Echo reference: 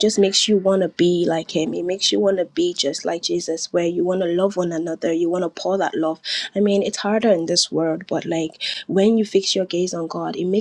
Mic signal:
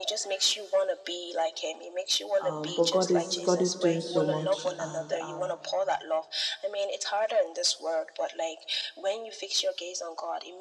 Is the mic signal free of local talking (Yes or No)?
No